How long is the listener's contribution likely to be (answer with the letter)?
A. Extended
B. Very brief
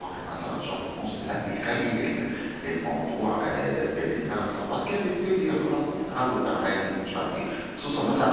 A